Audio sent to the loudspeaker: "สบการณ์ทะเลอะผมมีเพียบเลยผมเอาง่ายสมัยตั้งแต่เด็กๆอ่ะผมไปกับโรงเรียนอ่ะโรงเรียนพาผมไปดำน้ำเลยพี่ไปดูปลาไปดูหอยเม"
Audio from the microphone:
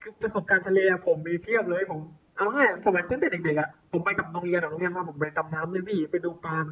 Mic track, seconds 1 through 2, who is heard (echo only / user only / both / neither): echo only